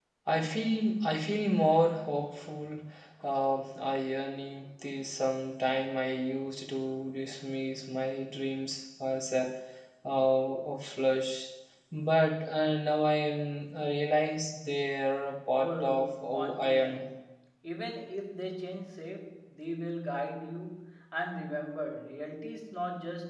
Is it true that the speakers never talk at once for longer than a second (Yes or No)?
No